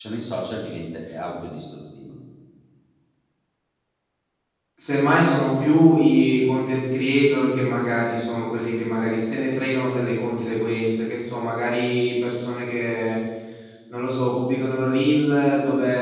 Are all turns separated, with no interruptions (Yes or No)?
Yes